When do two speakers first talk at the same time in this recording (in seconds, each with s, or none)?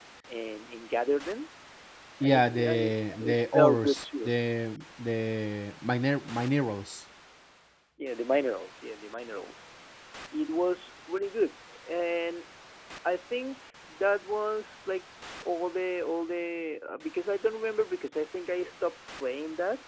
2.2 s